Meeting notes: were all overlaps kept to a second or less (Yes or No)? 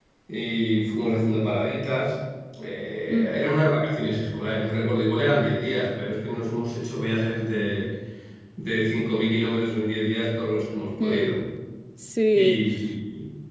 Yes